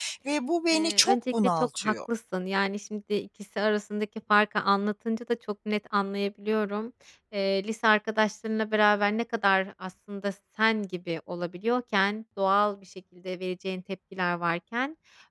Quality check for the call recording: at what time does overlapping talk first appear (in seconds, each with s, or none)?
0.7 s